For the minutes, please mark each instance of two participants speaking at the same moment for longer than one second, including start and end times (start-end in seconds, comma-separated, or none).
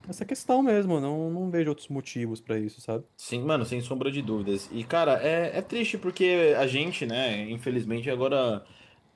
none